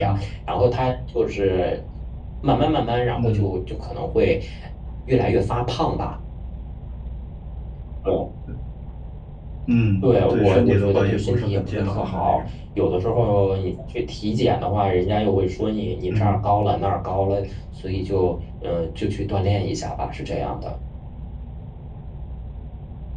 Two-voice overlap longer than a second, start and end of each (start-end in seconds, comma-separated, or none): 10.0-12.5